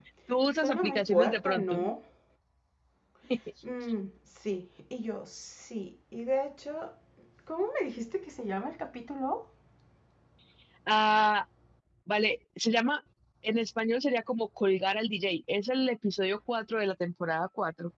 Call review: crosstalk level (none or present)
present